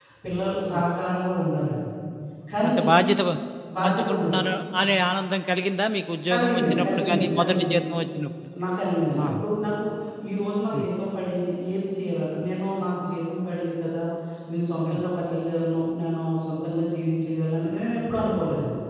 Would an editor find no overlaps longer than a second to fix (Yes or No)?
No